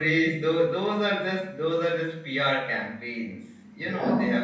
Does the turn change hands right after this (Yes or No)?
No